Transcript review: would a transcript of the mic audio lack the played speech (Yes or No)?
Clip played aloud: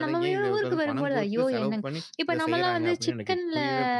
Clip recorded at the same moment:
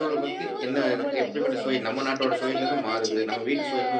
No